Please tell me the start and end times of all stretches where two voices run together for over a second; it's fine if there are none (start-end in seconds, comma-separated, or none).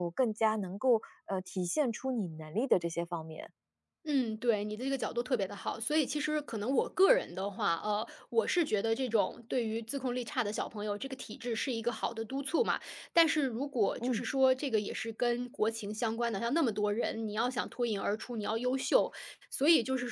none